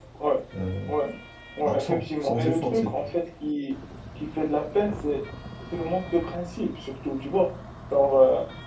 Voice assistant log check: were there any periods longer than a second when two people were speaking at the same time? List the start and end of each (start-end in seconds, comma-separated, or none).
1.6-3.1